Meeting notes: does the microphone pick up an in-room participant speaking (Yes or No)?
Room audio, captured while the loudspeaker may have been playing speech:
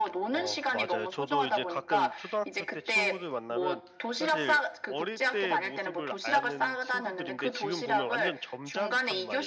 Yes